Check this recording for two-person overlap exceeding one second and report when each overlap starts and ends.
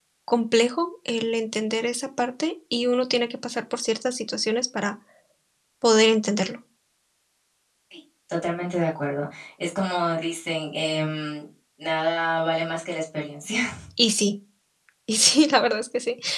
none

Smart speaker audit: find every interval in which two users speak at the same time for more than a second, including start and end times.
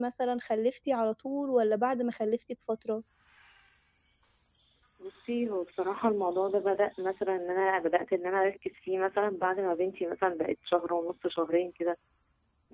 none

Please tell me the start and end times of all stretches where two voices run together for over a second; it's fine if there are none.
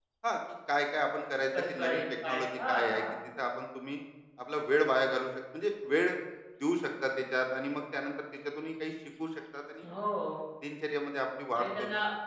1.7-3.0

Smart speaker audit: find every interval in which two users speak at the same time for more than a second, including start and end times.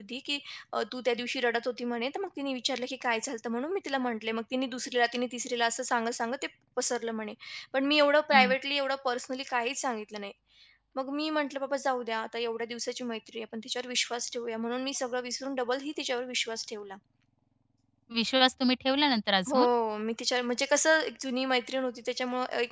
none

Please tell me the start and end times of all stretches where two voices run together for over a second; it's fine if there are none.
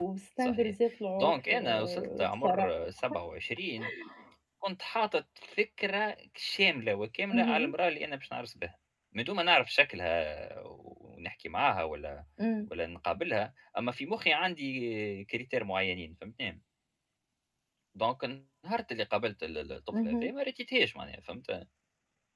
1.2-2.7

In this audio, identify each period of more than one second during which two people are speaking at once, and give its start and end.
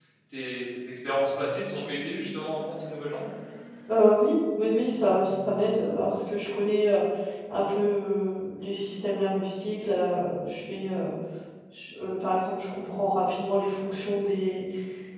none

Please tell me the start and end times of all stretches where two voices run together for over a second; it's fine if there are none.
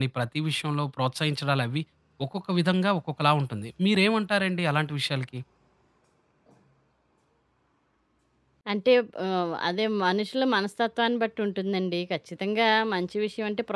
none

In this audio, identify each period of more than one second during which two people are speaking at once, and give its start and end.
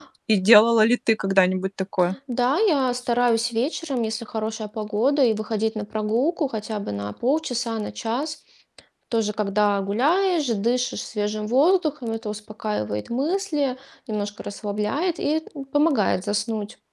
none

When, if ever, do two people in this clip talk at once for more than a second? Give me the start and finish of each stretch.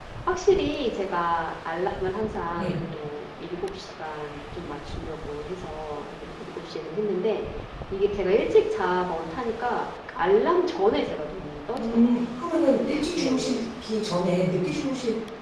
none

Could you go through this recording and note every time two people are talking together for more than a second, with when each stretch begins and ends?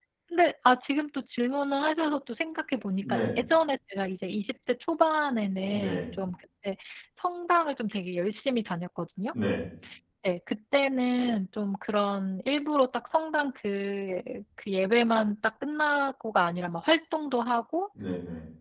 none

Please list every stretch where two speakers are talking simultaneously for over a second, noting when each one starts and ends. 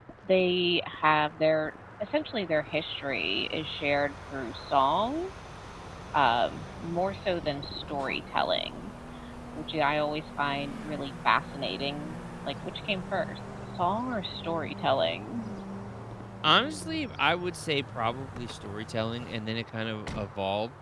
none

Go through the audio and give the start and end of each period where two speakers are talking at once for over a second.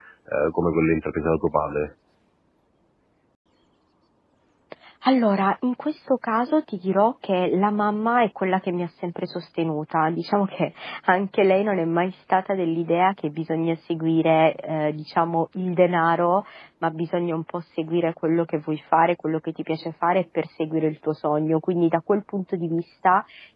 none

